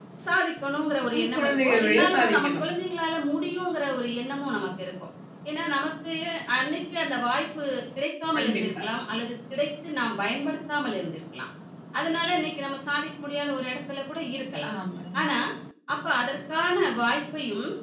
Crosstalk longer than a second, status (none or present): present